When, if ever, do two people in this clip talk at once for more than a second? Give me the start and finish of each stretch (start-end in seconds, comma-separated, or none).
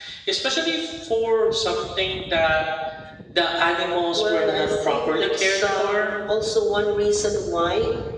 4.2-6.1